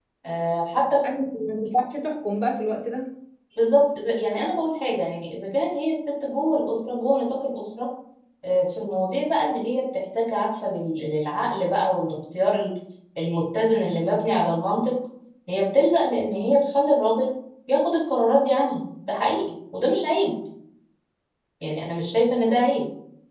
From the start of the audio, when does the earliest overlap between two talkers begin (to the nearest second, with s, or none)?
none